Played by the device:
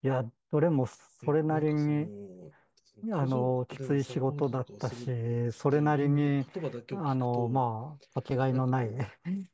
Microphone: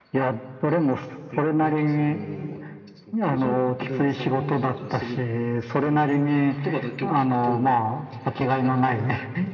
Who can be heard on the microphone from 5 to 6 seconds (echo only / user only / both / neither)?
echo only